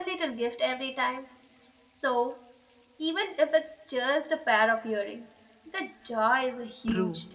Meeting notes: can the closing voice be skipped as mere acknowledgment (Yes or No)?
No